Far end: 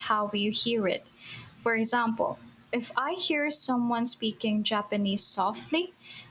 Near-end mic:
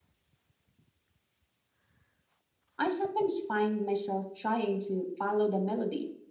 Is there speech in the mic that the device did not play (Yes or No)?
Yes